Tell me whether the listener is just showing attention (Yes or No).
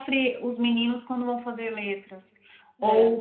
Yes